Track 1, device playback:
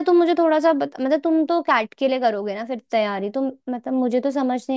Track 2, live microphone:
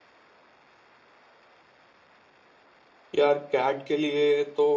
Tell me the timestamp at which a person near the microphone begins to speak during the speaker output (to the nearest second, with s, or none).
3 s